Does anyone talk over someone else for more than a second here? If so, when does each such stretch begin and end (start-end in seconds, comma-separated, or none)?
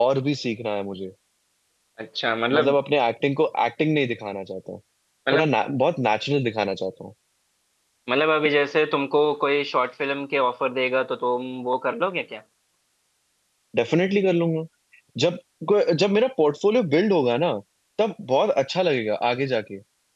none